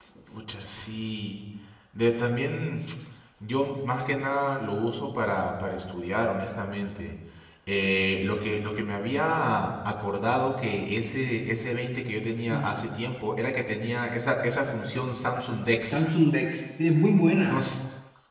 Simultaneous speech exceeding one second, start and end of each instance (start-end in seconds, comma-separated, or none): none